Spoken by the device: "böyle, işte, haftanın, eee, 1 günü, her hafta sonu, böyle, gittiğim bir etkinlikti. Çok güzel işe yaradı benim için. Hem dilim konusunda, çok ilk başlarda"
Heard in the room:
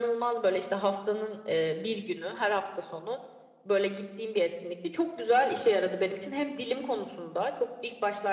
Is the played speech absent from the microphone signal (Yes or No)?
No